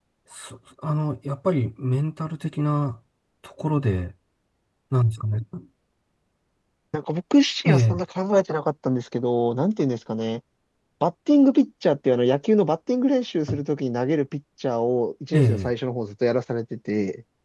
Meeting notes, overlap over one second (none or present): none